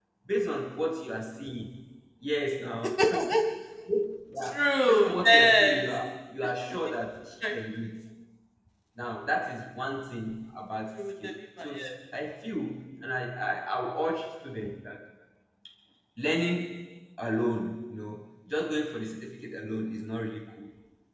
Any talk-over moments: Yes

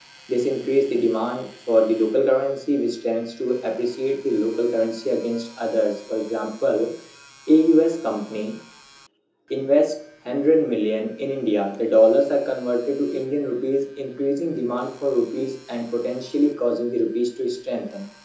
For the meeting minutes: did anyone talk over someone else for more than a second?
No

